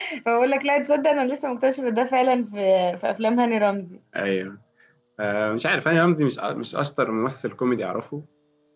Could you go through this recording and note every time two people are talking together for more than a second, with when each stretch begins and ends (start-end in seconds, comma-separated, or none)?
none